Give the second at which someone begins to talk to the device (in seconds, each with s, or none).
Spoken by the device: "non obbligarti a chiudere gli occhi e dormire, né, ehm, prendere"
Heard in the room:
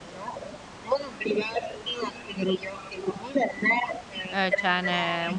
4.3 s